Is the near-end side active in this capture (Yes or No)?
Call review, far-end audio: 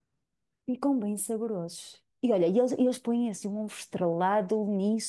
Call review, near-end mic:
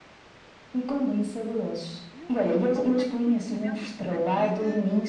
Yes